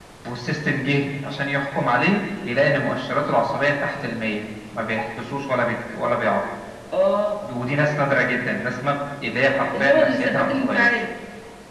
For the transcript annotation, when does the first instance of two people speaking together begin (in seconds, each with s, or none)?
9.7 s